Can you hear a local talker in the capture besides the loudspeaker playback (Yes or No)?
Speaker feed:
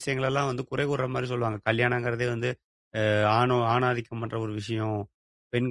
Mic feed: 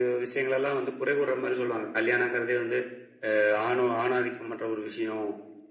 No